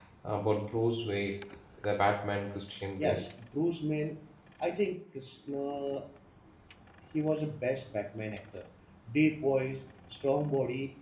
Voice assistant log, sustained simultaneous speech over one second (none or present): none